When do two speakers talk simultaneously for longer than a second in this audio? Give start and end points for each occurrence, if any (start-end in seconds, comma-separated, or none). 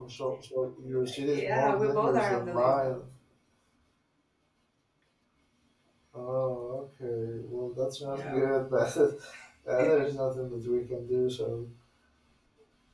1.2-3.0